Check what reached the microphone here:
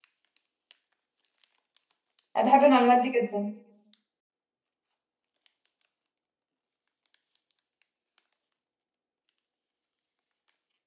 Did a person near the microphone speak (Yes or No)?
Yes